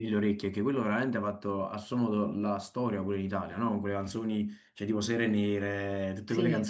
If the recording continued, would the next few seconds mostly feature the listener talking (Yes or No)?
No